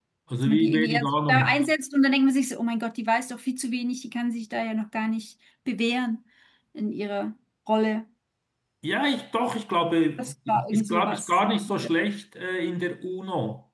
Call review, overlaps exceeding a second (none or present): present